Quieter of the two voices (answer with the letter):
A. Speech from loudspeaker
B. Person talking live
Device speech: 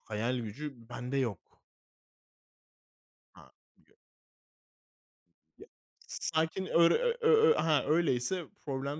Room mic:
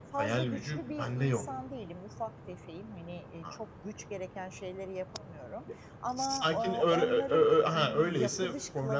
B